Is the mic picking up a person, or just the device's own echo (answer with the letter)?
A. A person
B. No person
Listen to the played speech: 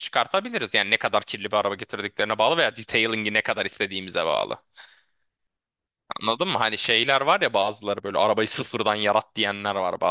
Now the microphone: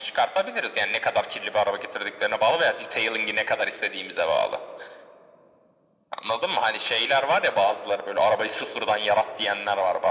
B